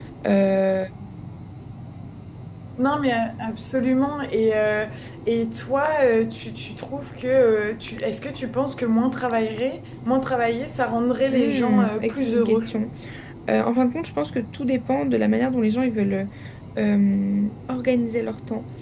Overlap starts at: 11 s

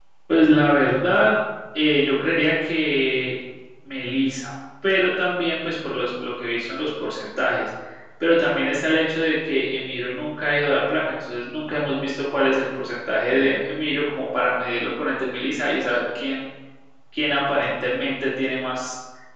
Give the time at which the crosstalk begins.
none

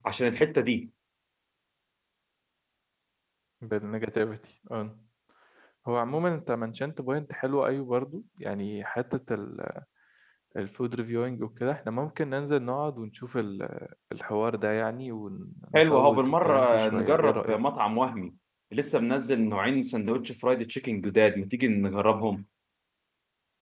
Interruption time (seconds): 16 s

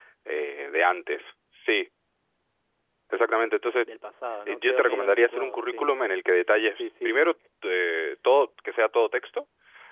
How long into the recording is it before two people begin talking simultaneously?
4 s

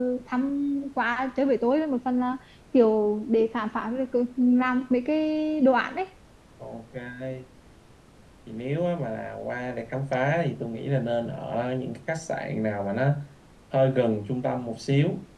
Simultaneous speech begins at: none

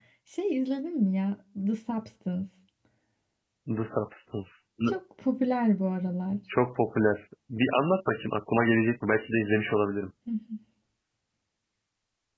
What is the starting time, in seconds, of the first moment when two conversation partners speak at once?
none

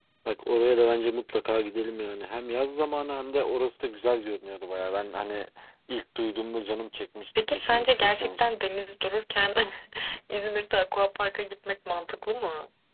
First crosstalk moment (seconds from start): 7 s

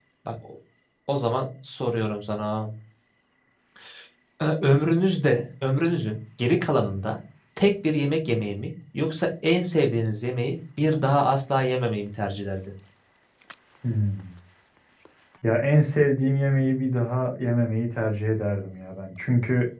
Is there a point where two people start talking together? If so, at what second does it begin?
none

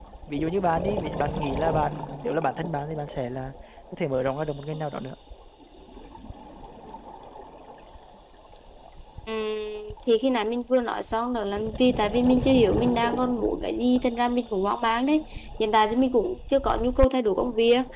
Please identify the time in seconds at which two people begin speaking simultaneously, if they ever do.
none

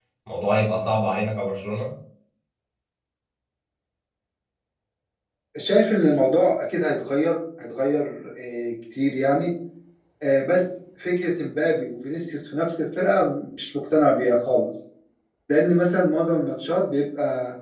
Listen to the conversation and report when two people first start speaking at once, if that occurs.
none

